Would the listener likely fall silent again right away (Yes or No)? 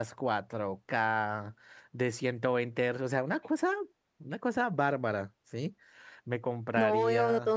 No